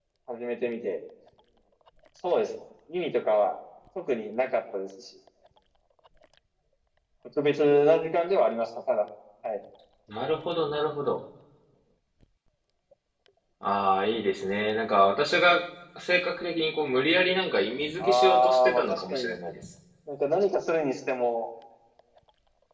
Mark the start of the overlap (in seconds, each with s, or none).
18.0 s